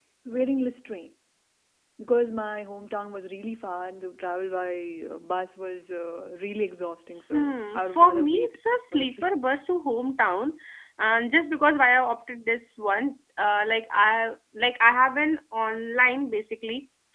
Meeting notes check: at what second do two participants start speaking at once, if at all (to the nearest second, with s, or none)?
7 s